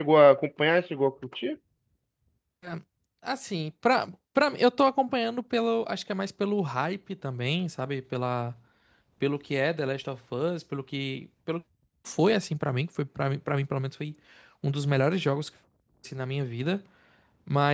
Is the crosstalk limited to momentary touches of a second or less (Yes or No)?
Yes